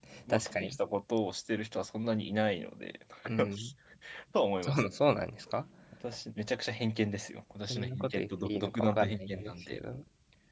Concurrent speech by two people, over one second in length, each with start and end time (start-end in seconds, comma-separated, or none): 7.7-9.8